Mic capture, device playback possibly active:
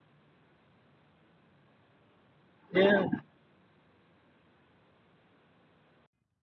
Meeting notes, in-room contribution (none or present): present